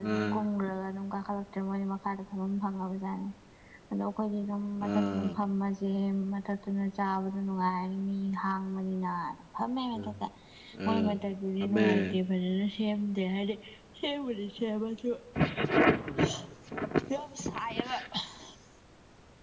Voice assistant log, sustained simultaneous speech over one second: none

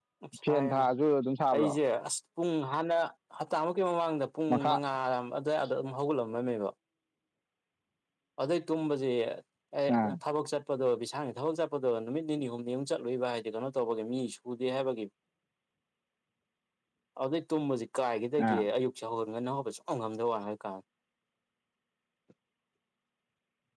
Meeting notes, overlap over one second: none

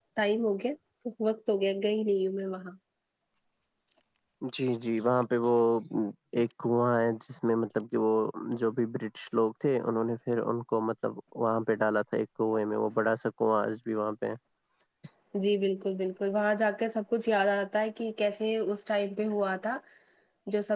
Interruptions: none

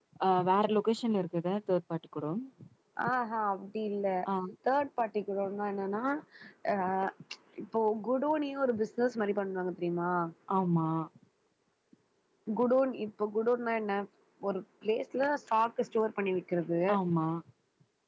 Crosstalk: none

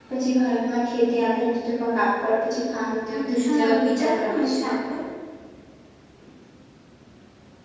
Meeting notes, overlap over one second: present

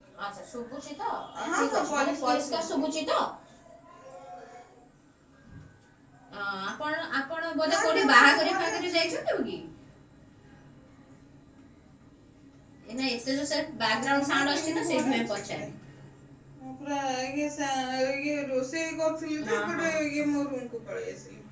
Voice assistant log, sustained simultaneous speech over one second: present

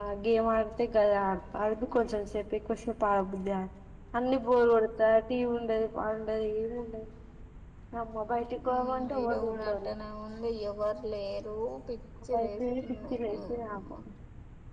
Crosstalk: present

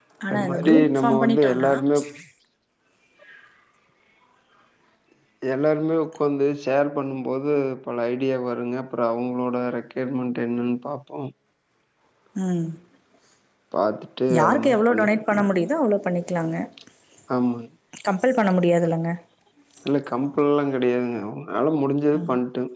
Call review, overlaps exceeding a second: present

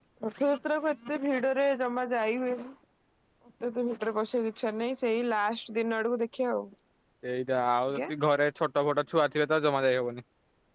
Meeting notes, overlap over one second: none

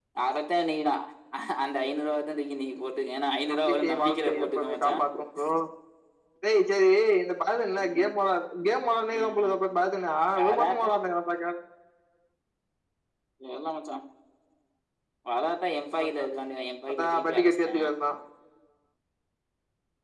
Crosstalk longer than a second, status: present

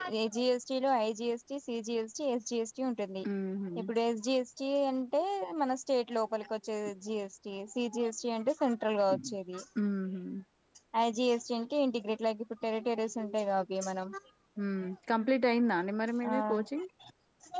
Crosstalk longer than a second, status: none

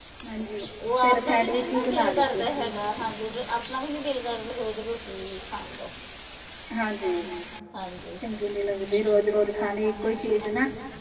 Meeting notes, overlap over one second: present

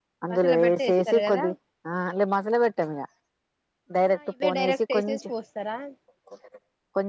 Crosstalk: present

